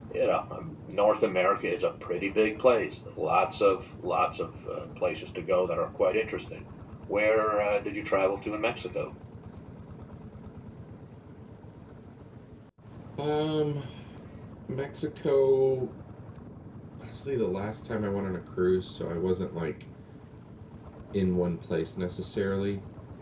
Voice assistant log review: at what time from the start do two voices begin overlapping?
none

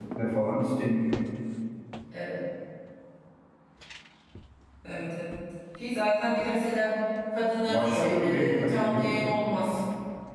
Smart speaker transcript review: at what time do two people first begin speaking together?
7.7 s

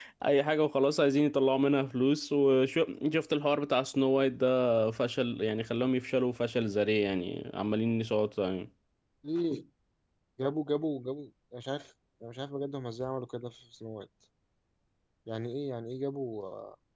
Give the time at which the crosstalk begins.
none

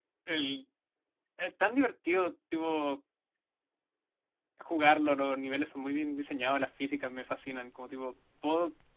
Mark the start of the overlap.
none

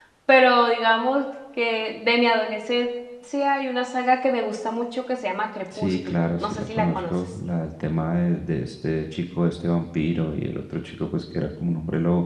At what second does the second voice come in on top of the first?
5.7 s

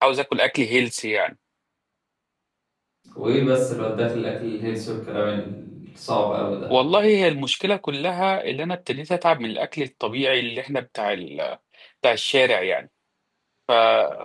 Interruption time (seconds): none

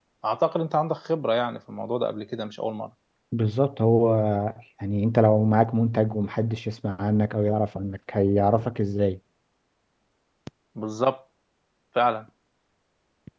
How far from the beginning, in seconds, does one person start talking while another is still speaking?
none

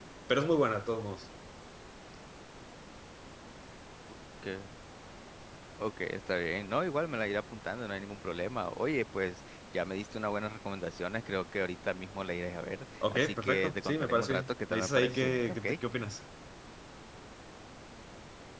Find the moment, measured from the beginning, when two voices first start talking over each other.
13.0 s

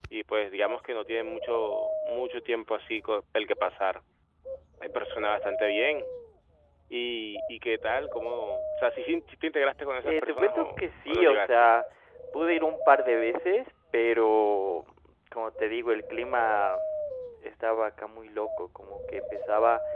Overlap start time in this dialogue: 10.0 s

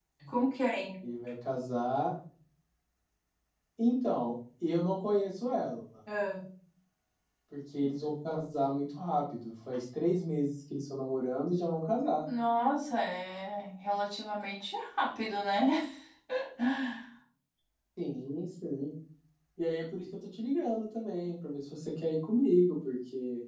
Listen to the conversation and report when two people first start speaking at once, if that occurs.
none

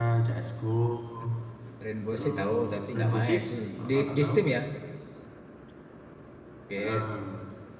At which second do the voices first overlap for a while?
2.1 s

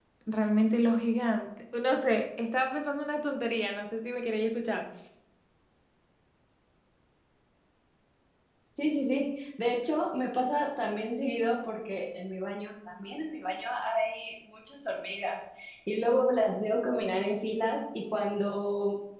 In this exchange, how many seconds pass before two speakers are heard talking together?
none

